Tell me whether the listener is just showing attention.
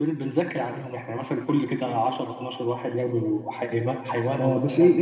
No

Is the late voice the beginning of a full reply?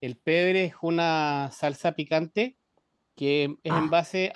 No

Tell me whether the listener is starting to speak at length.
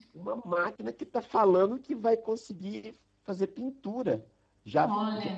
No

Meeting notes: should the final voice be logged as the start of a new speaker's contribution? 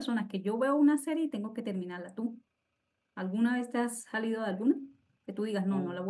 No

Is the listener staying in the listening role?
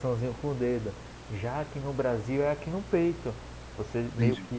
Yes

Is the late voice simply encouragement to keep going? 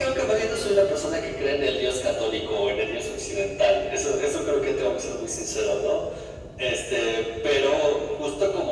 Yes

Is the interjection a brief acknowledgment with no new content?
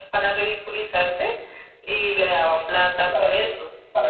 No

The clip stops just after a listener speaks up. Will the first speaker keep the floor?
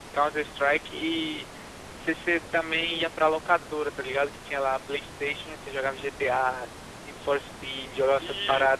No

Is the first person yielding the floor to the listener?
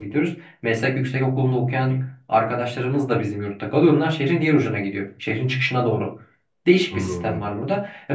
No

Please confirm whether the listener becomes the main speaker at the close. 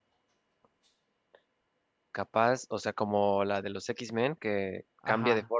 Yes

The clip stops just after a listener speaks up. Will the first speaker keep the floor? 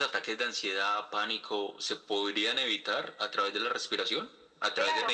No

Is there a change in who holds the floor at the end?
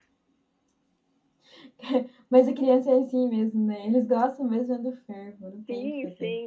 Yes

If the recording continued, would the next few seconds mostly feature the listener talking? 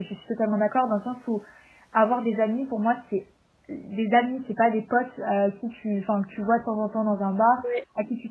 No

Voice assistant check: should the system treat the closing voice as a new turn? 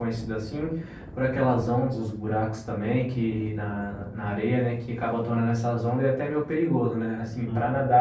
No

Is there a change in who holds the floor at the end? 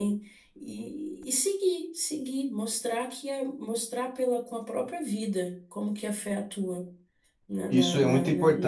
Yes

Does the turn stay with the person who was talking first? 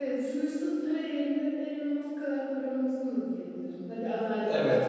No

